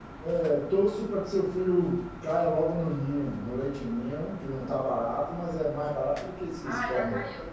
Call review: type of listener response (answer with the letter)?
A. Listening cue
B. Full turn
B